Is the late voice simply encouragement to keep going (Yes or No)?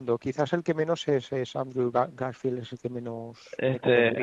No